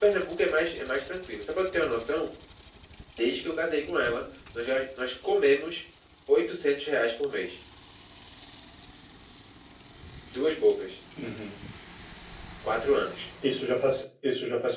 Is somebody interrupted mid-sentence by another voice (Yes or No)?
No